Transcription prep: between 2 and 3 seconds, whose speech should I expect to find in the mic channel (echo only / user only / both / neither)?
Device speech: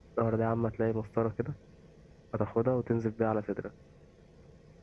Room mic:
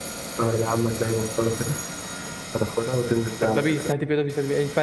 echo only